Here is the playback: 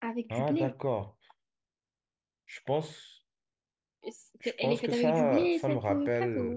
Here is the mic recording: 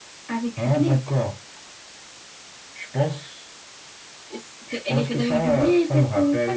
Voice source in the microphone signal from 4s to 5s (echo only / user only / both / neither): echo only